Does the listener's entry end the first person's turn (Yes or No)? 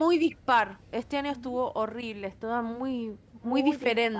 Yes